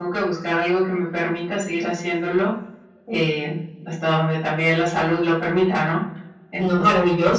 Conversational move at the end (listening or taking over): taking over